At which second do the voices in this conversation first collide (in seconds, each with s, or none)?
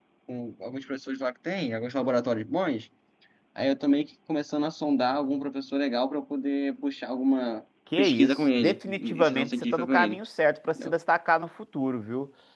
7.9 s